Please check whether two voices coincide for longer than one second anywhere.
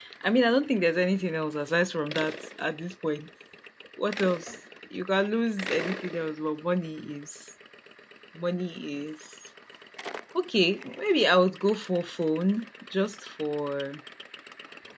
No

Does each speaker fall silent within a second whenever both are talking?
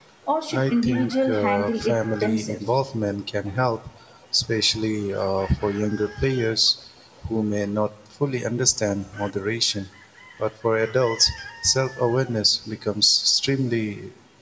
No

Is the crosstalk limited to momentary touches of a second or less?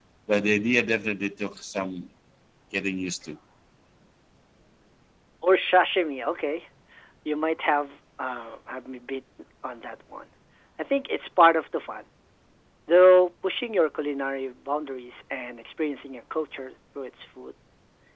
Yes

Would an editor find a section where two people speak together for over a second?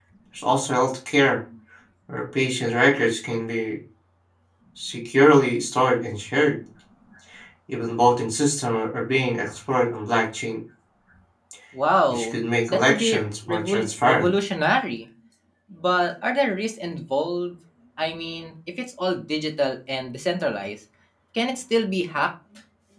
Yes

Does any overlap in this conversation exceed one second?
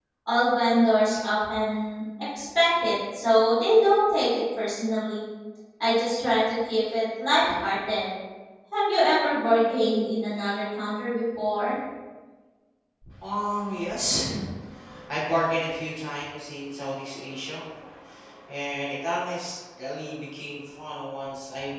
No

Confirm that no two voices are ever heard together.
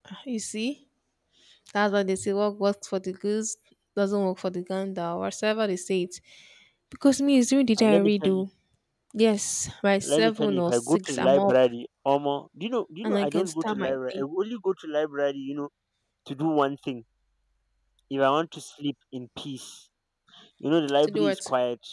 No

